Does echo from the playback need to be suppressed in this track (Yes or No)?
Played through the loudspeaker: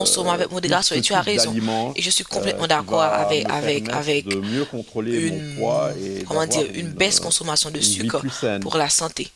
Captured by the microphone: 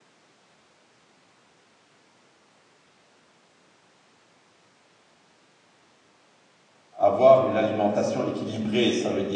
No